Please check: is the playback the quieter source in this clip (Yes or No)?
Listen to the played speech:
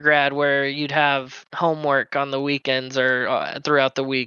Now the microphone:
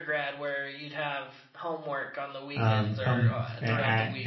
Yes